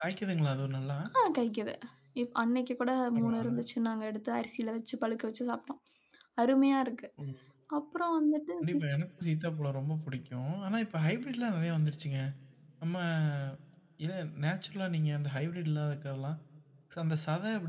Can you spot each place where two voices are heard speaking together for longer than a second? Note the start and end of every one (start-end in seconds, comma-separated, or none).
none